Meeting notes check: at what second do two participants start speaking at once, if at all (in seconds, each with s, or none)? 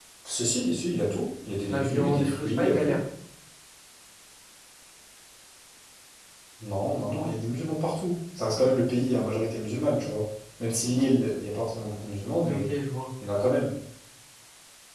1.7 s